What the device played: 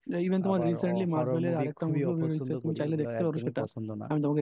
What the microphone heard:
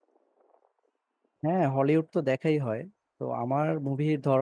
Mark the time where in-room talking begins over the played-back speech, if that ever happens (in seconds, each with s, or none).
1.4 s